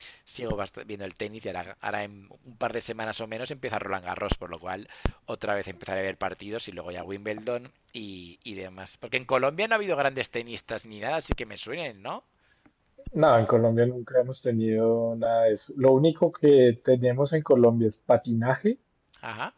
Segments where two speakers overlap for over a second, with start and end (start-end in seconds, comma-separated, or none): none